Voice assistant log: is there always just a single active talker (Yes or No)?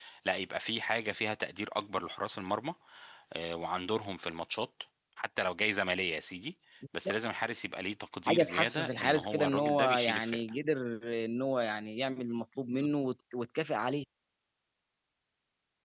No